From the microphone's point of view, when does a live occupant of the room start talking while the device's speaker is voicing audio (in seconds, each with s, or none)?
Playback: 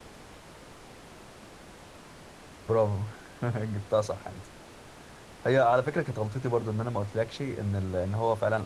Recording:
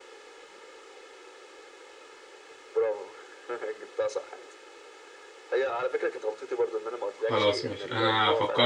7.2 s